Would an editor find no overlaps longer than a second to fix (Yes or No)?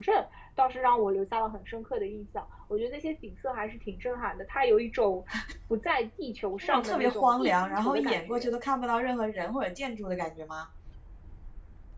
No